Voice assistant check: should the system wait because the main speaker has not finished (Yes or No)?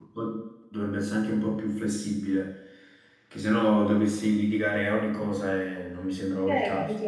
No